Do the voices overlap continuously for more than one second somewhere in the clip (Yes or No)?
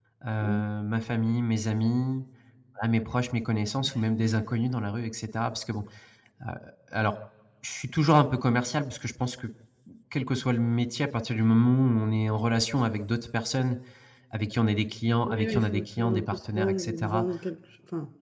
Yes